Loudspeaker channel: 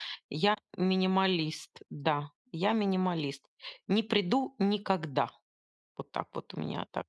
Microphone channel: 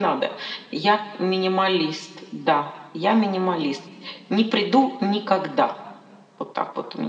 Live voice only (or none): none